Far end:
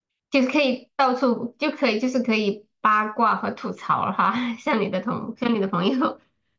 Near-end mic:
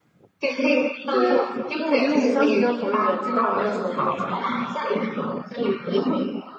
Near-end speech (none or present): present